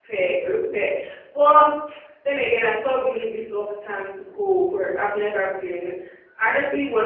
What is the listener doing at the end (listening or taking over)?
listening